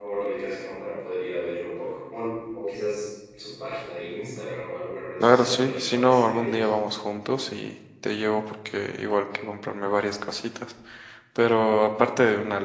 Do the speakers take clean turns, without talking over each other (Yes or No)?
No